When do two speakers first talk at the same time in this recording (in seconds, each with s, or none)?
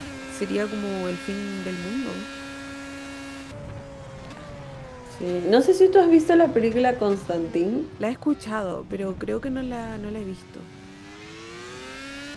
none